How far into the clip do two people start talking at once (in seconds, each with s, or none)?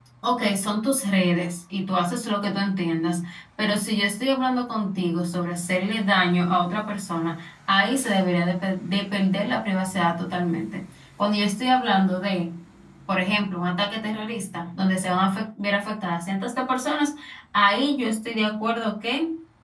none